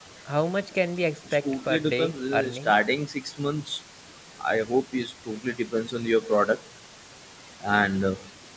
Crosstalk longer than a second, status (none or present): present